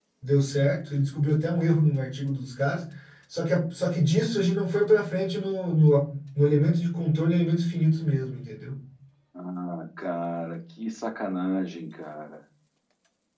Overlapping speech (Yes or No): No